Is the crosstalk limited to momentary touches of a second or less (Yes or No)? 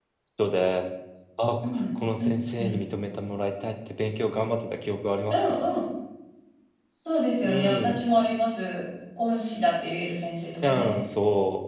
Yes